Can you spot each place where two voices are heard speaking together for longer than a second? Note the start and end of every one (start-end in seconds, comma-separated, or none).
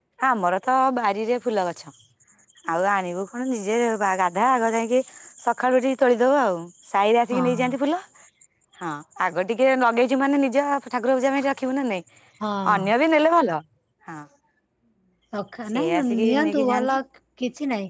15.8-16.9